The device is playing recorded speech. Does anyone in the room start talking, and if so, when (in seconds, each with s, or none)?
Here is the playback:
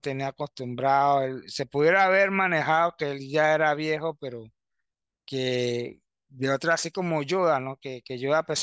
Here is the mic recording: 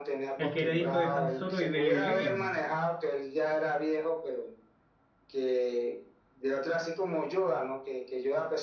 0.4 s